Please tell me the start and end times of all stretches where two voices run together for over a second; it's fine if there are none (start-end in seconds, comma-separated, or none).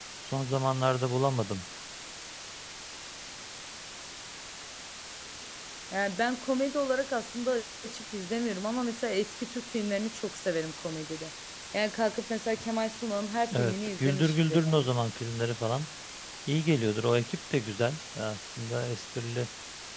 13.5-14.9